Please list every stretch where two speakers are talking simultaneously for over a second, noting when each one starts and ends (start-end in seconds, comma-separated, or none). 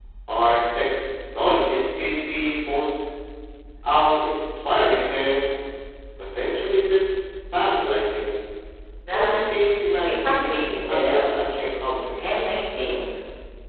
9.1-11.5